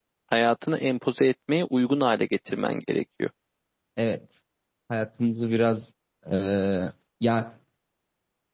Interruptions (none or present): none